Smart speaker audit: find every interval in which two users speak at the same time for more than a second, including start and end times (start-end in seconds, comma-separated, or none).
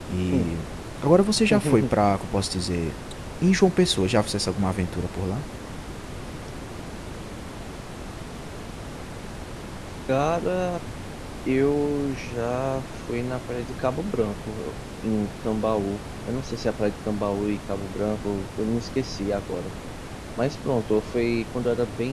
none